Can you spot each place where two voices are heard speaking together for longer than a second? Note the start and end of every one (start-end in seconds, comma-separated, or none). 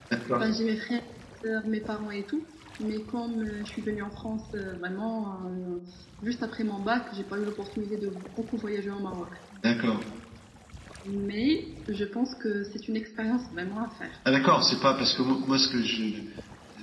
none